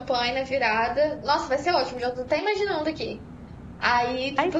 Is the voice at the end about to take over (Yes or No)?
No